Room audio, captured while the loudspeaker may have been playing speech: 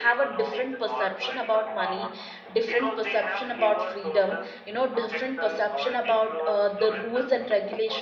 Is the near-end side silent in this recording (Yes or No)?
No